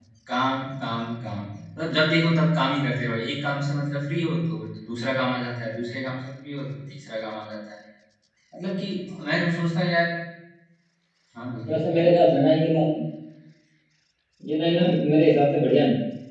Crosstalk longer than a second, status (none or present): none